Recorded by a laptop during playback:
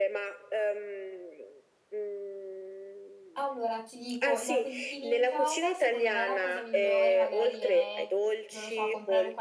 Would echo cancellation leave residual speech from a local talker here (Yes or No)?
Yes